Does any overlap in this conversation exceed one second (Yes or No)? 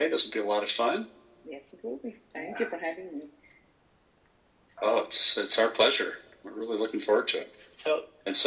No